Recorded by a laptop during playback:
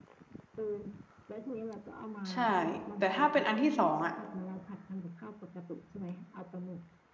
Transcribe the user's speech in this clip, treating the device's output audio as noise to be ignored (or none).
ใช่แต่ถ้าเป็นอันที่สองอ่ะ